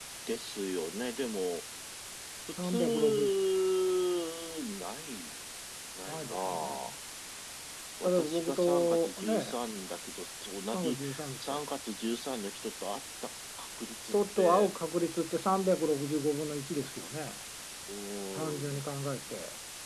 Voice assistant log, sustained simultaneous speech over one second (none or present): present